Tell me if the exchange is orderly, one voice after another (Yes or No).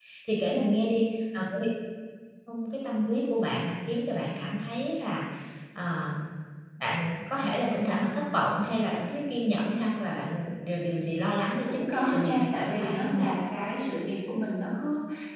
No